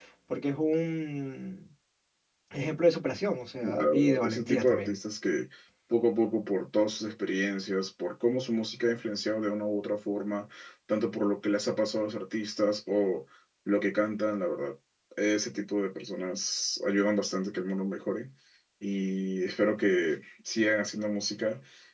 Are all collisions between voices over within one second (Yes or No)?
No